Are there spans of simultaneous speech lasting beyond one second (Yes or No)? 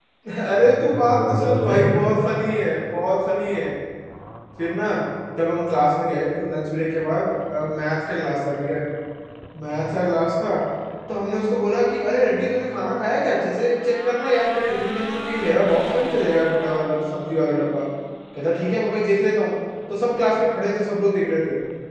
Yes